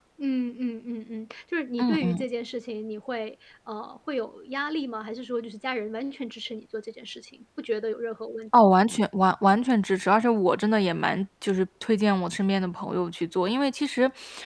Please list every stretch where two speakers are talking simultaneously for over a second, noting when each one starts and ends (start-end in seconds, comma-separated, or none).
none